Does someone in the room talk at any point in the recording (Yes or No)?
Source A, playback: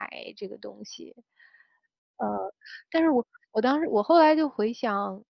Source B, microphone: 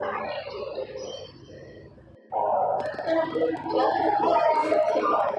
No